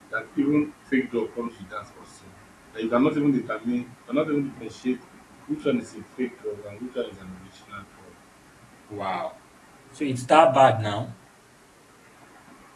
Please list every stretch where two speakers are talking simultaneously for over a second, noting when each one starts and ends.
none

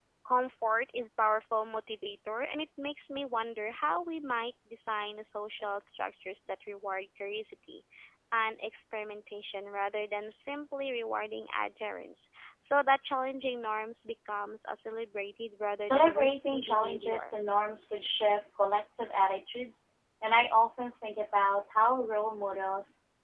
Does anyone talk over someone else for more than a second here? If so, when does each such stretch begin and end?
15.9-17.3

